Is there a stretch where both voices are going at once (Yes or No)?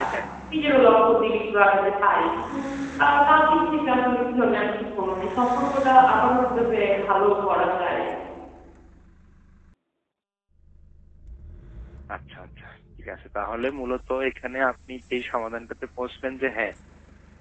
No